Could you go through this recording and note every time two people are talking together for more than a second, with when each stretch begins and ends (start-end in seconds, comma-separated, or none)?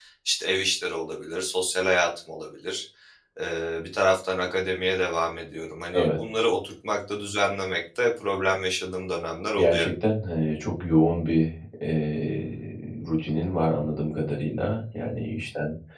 none